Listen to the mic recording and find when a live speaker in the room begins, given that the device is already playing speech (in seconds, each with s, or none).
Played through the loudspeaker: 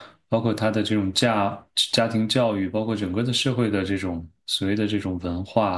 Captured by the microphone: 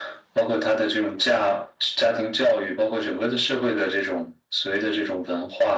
none